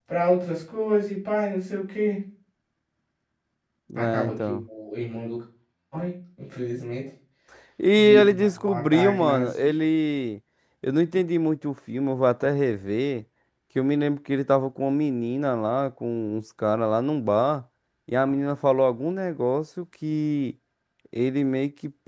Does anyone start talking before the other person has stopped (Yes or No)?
Yes